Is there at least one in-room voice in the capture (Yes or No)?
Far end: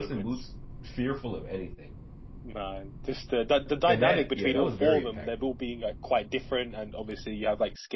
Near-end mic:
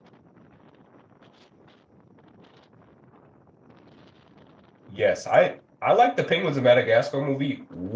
Yes